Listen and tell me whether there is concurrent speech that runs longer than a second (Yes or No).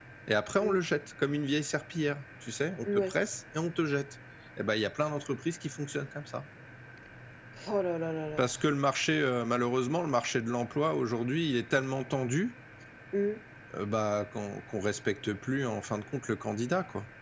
No